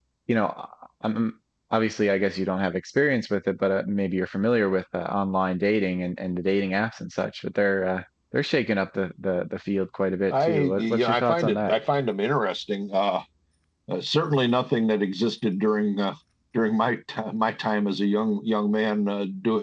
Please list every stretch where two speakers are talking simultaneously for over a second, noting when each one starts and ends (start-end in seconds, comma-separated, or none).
10.3-11.7